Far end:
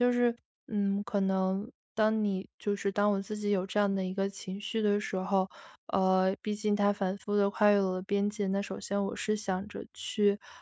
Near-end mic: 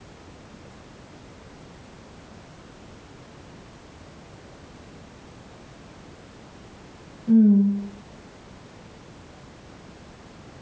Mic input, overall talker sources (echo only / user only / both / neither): user only